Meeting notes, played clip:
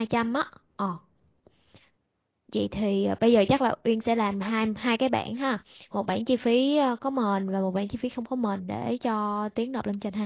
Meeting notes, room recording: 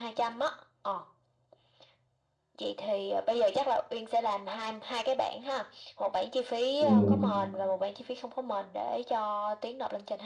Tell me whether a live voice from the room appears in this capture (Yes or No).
Yes